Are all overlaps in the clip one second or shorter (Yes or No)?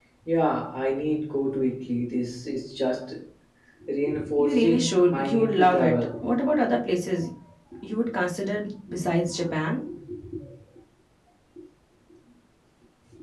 No